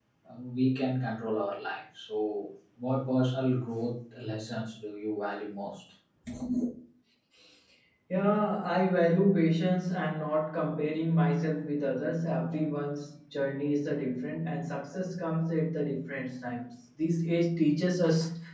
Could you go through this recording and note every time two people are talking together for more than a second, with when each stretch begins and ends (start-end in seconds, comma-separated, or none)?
none